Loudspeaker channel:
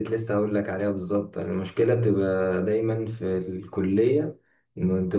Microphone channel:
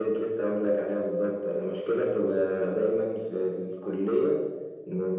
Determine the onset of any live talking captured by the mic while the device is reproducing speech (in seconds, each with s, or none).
none